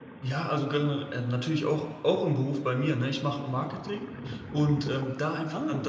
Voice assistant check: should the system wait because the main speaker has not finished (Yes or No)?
Yes